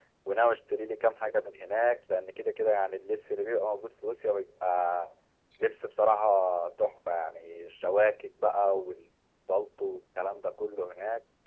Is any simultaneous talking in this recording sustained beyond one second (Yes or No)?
No